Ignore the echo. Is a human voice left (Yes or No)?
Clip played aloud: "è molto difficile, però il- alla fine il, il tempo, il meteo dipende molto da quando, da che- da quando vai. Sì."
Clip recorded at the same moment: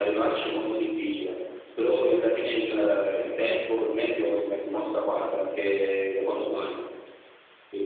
No